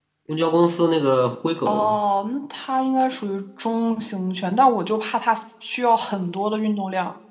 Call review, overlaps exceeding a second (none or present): none